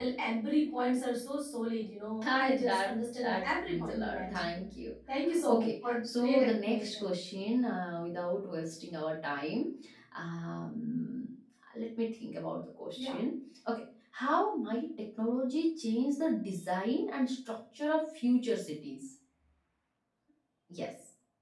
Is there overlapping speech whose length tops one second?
Yes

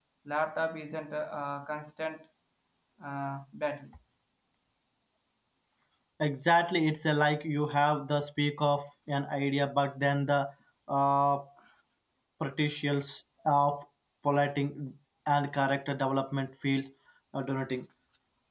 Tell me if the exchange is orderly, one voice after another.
Yes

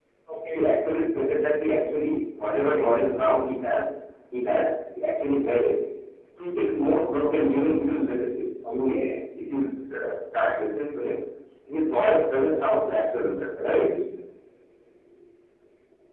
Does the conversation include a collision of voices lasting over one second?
No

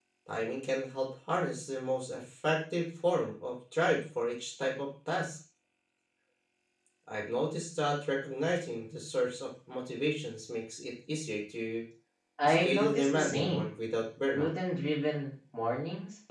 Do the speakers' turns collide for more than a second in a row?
Yes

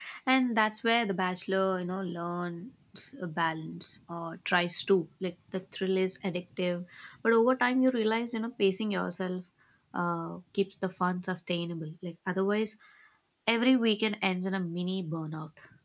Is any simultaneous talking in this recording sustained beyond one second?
No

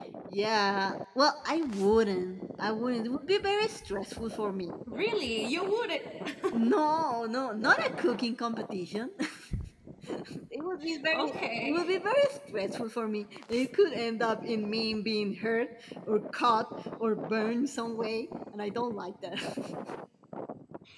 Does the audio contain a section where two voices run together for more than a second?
No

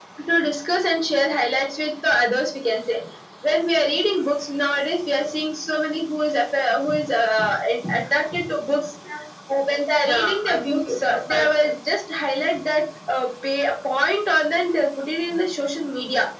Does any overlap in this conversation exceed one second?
Yes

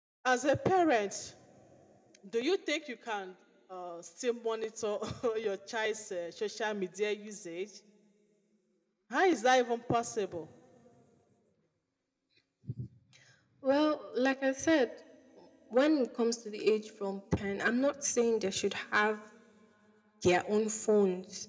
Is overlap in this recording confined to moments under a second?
Yes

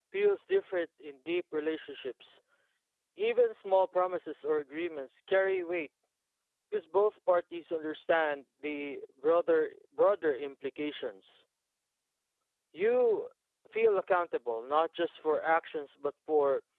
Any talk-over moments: No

